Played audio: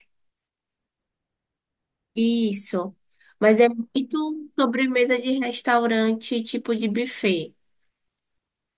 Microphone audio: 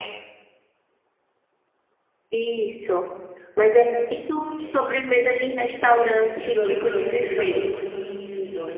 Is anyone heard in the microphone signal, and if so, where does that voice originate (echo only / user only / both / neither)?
both